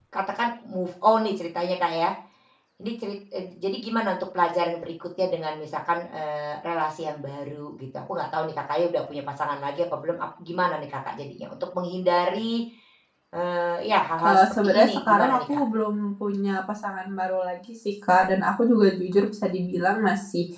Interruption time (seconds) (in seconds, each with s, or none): 14.2 s